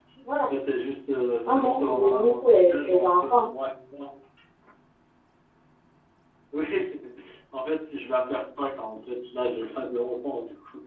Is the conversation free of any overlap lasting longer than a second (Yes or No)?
No